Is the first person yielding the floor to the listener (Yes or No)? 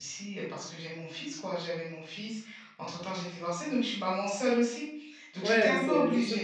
Yes